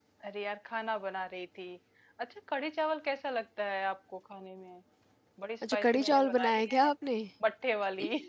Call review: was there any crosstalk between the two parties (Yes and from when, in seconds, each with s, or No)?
Yes, from 5.7 s